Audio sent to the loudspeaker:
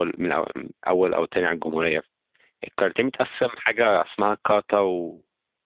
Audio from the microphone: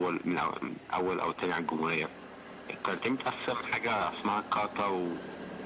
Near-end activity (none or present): none